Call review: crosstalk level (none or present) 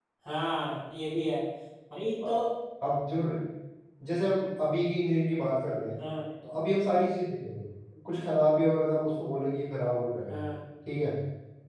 none